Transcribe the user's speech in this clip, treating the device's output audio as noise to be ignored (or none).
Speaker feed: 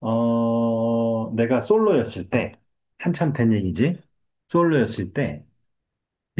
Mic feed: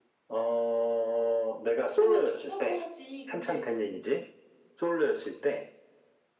없으면 좋다고 하지. 근데